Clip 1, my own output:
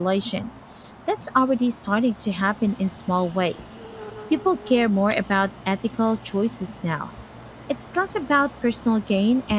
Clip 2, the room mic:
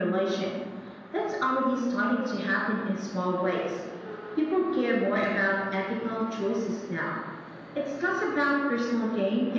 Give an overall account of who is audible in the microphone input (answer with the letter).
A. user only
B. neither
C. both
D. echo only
D